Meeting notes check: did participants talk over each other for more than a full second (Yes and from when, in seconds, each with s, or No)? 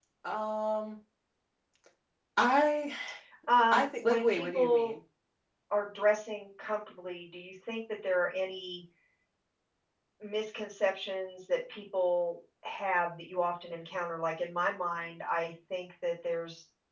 Yes, from 3.7 s